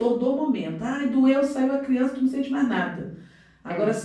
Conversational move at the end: listening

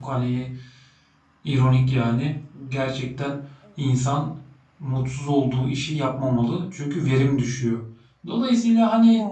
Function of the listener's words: listening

